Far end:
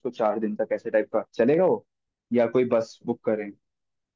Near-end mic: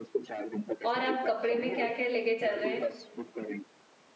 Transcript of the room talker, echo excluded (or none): और आप कपड़े में क्या क्या लेके चल रहे हैं